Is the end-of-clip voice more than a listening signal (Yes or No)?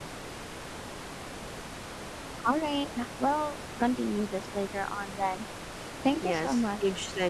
Yes